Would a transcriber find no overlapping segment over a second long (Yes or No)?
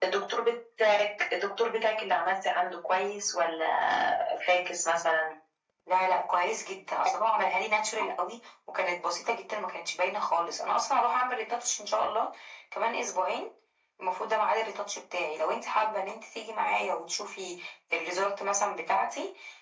Yes